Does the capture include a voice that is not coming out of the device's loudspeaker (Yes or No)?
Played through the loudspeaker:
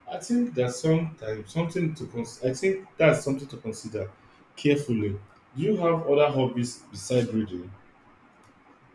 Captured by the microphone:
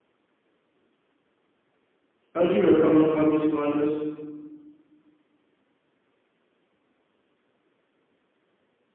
Yes